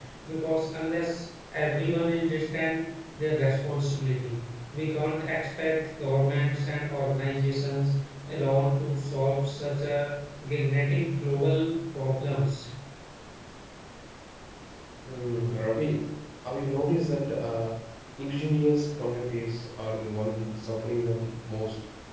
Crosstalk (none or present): none